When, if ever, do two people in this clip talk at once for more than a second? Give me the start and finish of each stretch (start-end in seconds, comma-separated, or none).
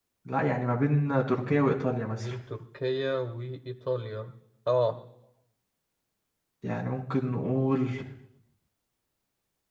none